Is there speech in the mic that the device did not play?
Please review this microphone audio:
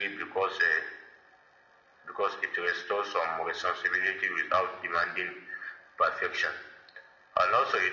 No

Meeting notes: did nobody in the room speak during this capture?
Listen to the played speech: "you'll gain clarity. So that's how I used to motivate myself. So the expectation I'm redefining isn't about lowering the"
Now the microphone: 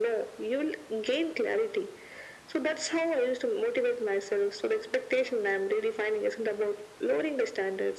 Yes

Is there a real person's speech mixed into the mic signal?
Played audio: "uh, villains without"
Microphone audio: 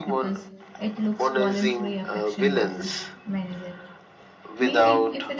Yes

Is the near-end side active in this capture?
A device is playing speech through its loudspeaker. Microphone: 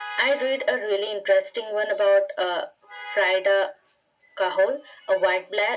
No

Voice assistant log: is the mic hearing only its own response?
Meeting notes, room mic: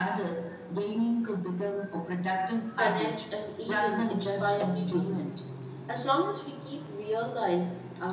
No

